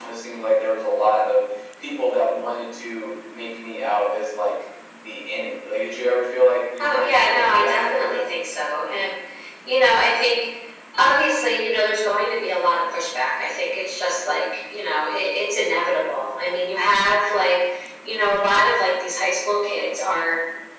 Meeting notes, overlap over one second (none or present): present